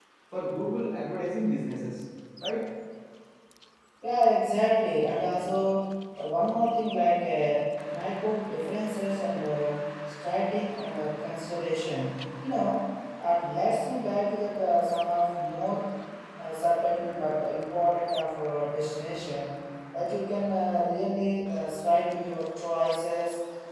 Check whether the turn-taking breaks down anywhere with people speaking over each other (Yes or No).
No